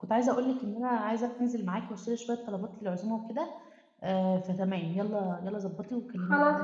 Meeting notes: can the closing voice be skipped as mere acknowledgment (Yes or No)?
No